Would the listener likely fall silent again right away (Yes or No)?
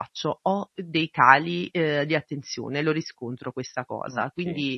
Yes